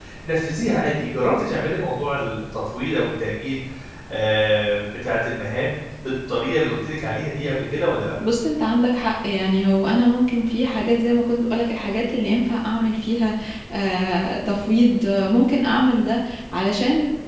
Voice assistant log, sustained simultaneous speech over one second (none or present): none